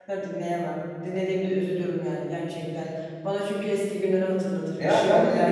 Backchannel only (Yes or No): No